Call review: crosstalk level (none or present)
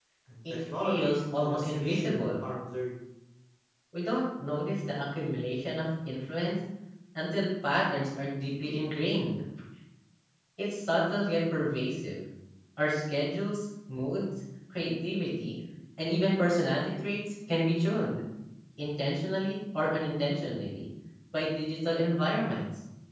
present